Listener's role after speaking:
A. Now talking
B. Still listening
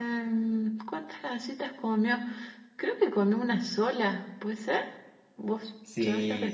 A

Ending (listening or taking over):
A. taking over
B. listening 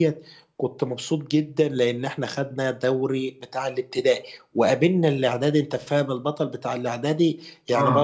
B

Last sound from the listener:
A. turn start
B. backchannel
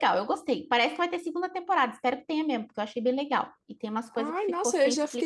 A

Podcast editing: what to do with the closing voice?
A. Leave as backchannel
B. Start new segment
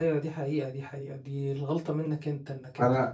B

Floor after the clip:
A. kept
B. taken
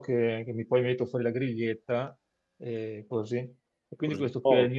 A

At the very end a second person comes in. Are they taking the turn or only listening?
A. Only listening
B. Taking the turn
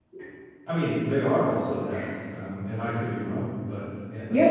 B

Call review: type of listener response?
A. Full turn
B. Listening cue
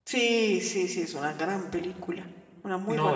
A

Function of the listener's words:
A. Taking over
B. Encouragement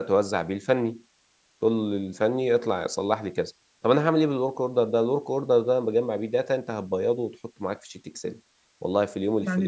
A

